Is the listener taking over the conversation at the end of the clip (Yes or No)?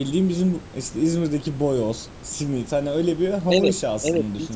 Yes